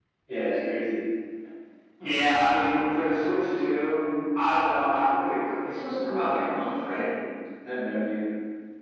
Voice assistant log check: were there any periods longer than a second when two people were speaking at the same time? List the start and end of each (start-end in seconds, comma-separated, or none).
none